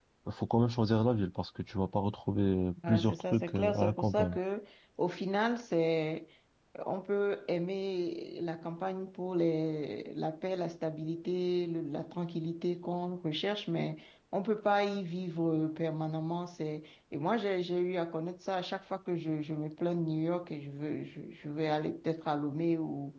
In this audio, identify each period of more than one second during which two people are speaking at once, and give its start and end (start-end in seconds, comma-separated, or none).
2.9-4.4